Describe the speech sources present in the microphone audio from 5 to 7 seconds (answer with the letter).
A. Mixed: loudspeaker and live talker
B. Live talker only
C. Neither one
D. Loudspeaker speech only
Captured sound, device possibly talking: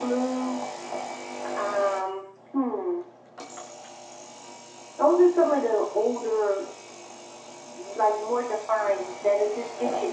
D